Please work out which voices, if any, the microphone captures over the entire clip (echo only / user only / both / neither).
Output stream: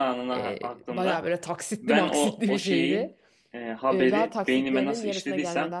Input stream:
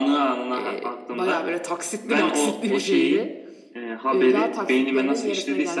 echo only